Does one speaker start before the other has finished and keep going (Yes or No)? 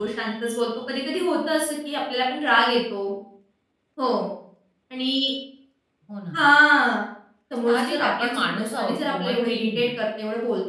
Yes